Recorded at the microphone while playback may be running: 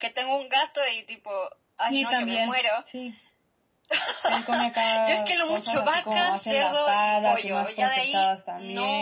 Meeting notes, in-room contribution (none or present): present